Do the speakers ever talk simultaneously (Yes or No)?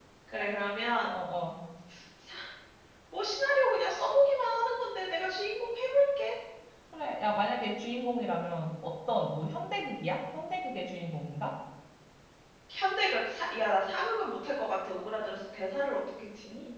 No